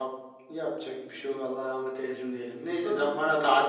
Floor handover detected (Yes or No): No